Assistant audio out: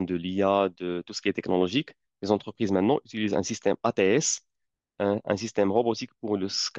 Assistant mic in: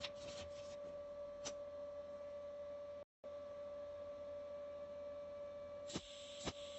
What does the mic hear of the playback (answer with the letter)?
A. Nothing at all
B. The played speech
A